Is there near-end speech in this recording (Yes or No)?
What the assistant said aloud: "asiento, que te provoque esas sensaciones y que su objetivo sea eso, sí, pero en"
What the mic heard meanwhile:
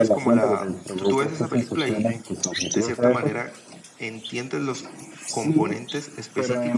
Yes